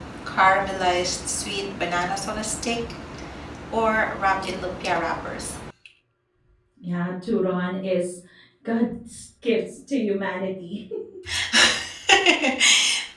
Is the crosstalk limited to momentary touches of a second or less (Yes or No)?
Yes